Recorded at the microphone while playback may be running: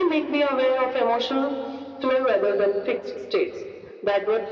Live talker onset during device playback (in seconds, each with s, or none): none